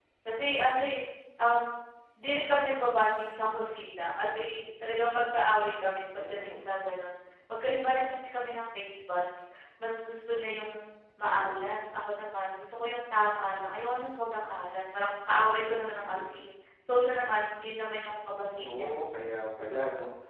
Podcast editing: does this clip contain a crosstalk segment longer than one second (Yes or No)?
No